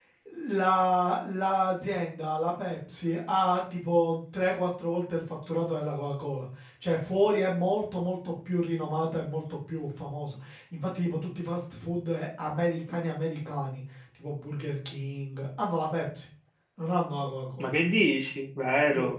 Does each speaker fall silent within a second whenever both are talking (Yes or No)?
Yes